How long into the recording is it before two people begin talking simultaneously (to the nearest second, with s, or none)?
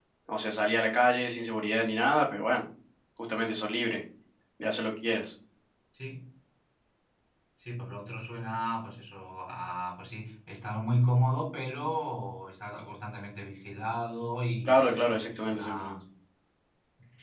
15 s